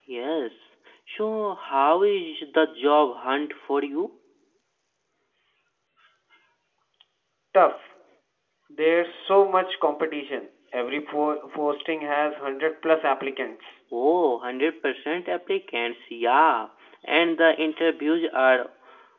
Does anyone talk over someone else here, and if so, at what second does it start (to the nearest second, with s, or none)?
none